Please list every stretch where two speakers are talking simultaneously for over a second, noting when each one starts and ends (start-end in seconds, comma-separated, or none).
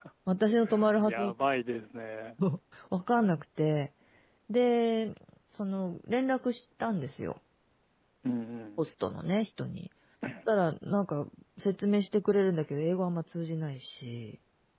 none